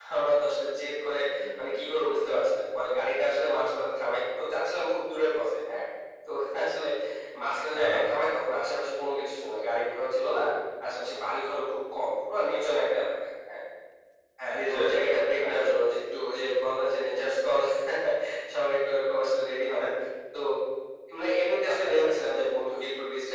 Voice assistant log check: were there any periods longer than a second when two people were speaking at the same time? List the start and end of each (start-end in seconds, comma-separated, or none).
14.6-15.9